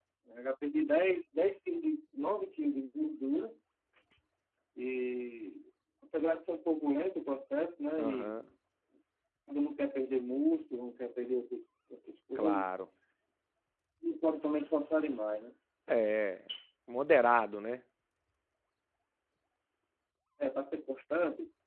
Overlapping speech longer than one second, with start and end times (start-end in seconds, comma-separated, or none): none